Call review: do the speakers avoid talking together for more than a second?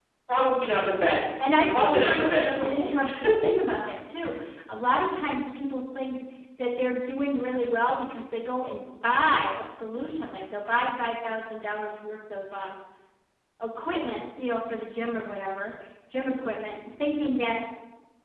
No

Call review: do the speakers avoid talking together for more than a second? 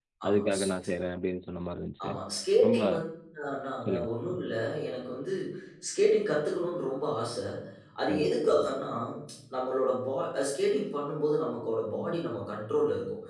Yes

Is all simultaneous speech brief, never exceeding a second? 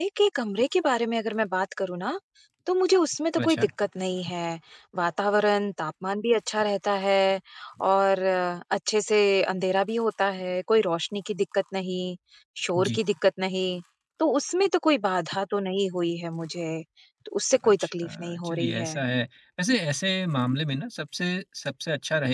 No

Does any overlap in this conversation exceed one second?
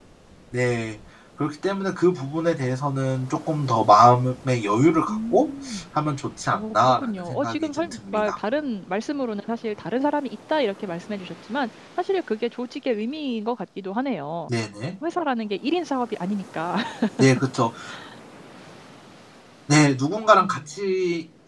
Yes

